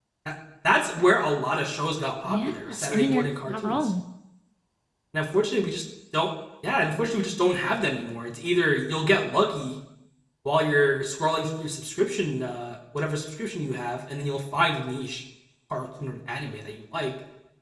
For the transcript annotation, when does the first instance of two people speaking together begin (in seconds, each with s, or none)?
2.2 s